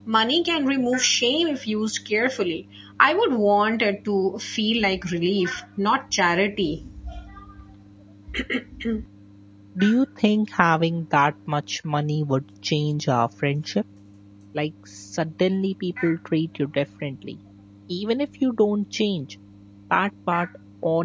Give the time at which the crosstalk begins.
none

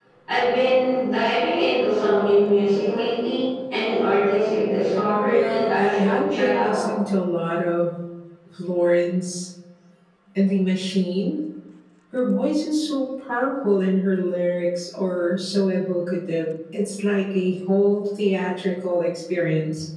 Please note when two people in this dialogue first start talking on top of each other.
5.2 s

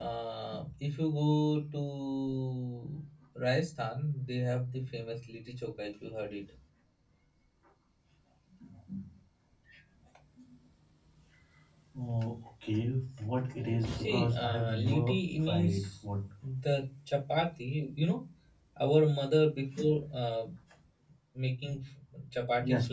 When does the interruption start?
13.8 s

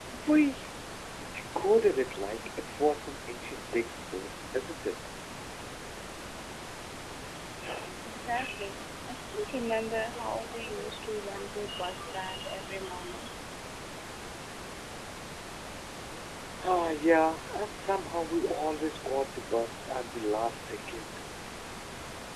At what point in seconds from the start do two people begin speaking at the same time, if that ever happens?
none

